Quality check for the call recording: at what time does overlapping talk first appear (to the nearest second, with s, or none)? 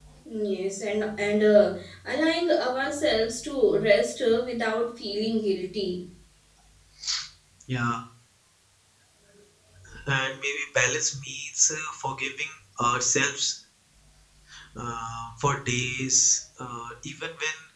none